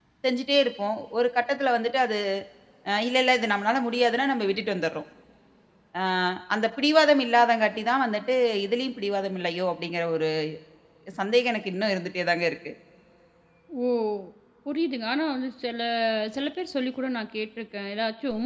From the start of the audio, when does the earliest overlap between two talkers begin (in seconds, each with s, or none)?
none